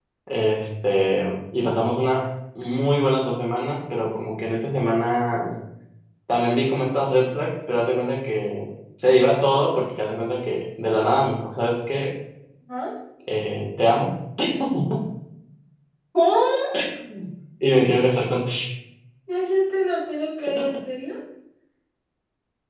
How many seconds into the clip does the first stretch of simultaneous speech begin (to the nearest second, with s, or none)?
none